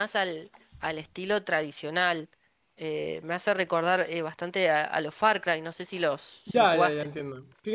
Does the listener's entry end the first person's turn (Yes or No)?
Yes